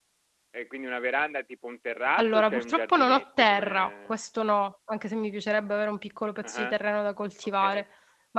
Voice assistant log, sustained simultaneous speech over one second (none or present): present